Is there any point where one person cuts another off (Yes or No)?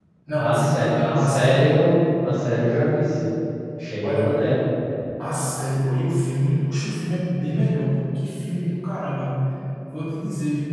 Yes